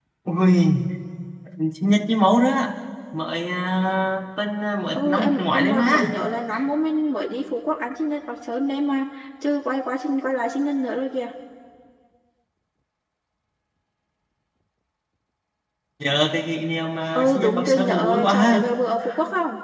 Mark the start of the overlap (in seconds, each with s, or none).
4.9 s